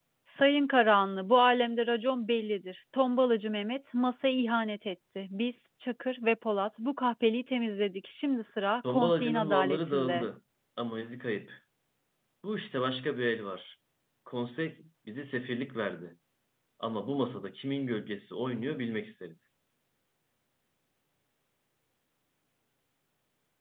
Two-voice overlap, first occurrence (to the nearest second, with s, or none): 9 s